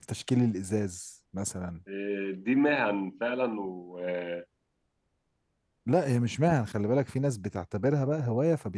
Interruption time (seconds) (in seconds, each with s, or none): none